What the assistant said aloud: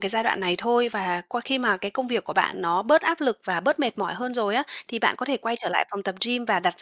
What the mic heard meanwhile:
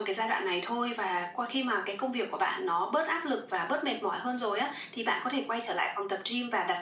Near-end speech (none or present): none